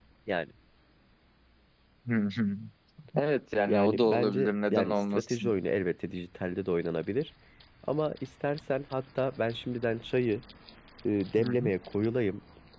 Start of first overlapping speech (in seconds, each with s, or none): 3.7 s